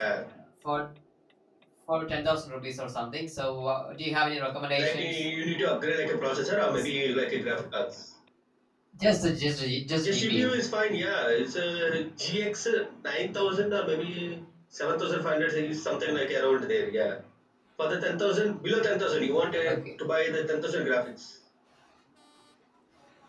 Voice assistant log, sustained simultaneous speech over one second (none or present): none